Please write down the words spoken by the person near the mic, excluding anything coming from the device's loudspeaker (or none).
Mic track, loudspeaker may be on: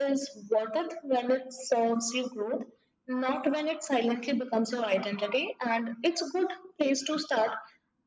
none